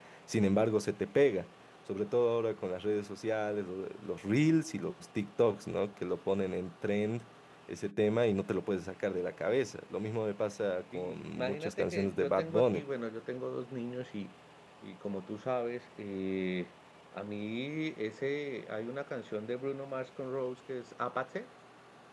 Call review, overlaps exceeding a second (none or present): present